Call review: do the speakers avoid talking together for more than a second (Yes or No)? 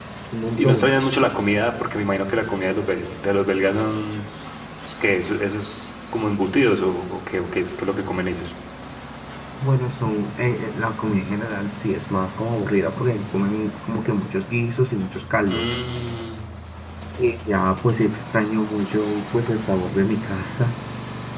Yes